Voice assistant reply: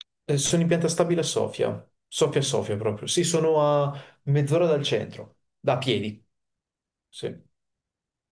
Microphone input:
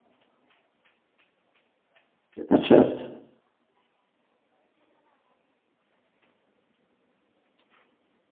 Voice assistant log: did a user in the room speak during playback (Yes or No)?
Yes